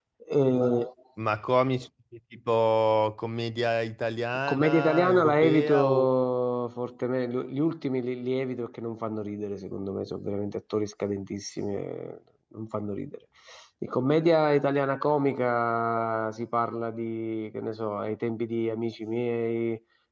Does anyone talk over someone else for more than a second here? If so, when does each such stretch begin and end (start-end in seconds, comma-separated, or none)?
4.5-6.0